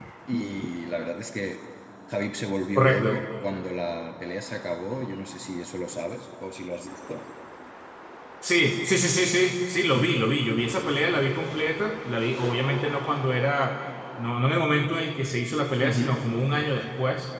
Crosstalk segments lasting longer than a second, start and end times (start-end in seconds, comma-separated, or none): none